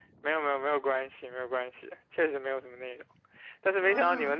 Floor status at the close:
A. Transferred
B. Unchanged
B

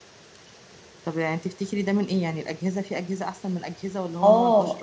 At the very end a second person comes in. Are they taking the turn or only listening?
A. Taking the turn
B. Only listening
A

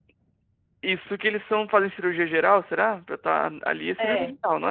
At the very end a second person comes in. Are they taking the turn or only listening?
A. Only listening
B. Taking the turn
B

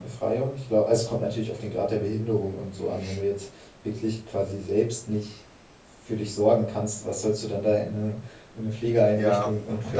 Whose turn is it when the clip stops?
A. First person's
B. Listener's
B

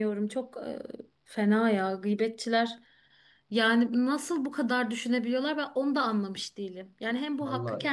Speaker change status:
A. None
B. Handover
A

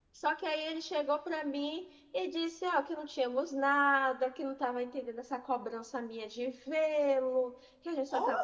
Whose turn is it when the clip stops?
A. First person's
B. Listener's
A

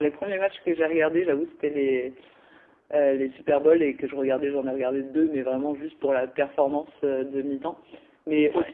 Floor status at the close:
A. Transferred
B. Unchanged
B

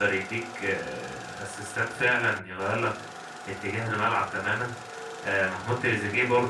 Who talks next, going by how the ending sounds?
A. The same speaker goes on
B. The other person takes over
A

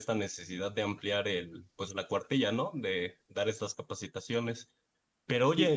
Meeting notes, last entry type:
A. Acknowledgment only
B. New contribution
A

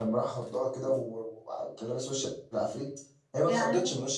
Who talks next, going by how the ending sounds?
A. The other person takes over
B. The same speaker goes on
B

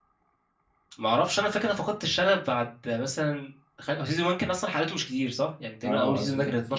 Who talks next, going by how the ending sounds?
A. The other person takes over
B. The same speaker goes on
A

